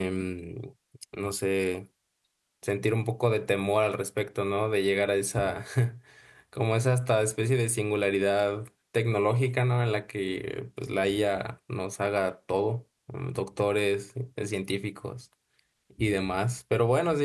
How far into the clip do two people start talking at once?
none

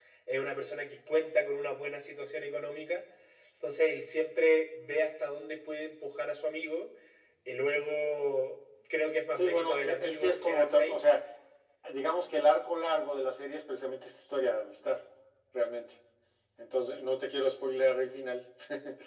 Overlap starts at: 9.4 s

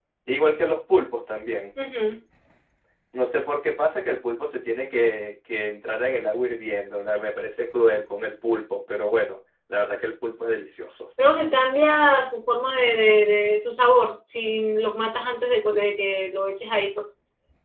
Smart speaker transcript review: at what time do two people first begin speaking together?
none

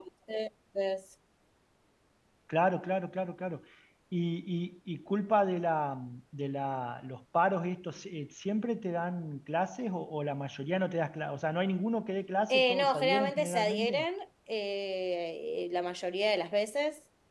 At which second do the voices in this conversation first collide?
12.5 s

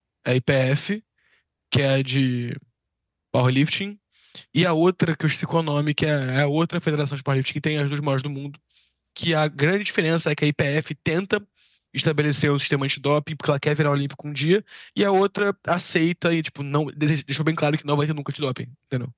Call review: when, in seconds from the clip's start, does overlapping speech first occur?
none

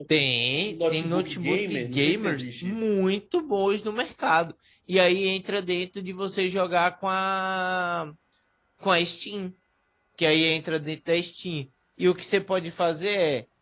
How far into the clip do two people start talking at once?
0.7 s

